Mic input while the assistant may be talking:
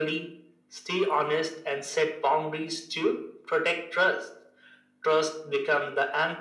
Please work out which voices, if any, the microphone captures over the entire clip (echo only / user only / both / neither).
echo only